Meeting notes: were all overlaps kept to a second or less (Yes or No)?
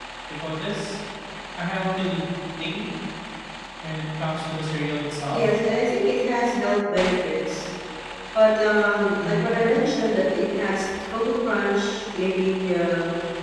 Yes